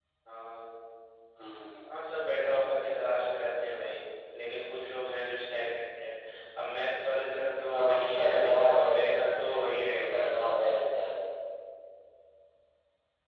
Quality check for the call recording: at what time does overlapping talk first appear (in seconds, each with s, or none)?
7.7 s